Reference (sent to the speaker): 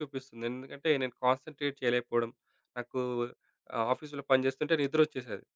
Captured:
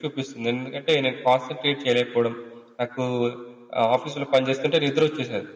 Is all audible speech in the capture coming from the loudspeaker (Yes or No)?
Yes